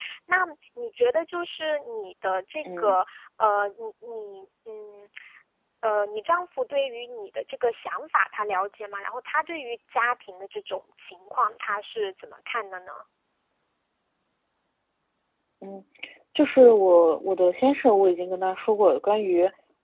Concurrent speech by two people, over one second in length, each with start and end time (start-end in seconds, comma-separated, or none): none